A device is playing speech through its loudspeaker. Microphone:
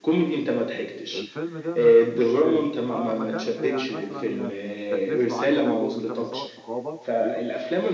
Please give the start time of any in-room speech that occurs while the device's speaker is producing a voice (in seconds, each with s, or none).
1.1 s